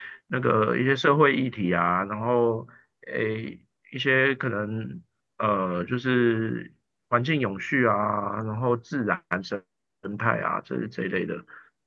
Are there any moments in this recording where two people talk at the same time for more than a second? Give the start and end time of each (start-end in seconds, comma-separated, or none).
none